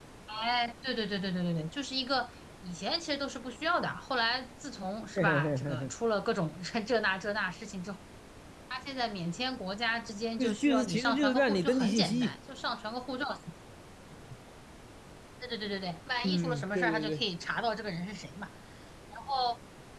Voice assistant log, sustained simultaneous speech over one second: present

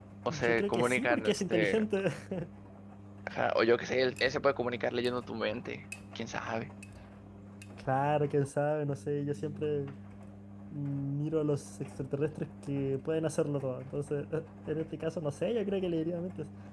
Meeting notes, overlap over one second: present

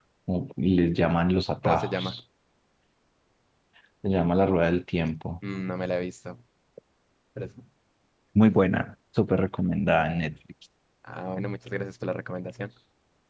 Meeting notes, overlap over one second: none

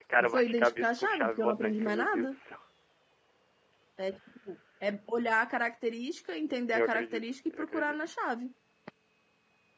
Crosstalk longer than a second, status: present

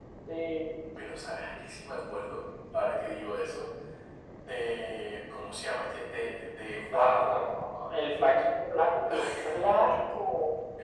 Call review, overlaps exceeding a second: none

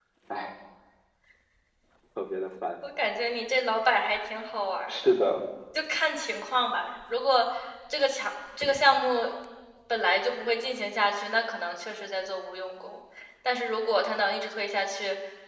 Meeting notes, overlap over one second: none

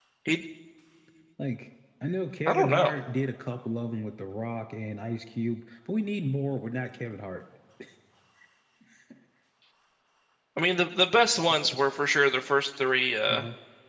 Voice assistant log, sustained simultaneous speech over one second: none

